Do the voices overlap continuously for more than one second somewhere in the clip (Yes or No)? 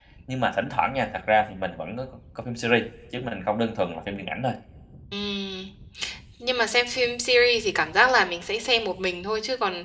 No